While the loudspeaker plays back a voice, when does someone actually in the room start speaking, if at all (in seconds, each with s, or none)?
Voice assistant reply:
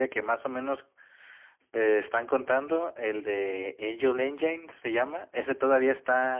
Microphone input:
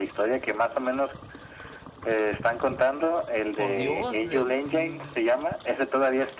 3.5 s